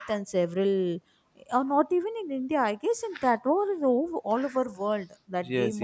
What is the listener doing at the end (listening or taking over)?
taking over